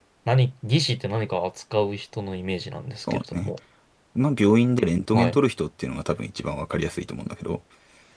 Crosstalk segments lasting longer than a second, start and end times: none

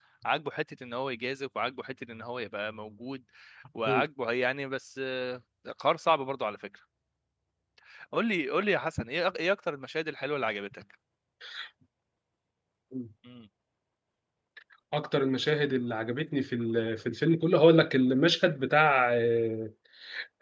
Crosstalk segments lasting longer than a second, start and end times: none

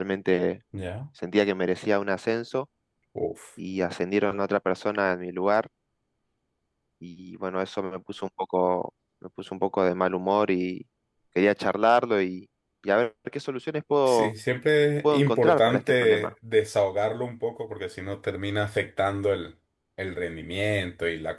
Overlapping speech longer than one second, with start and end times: 15.0-16.3

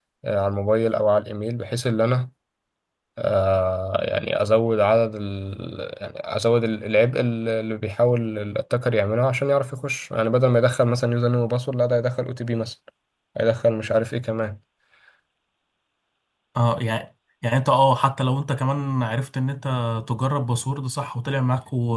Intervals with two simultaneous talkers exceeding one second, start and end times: none

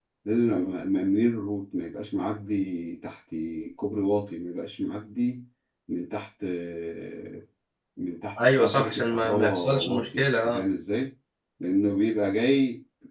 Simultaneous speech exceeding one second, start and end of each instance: 8.6-10.6

